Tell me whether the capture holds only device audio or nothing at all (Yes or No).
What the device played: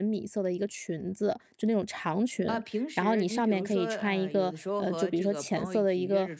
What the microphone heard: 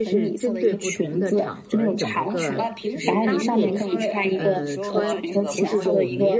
No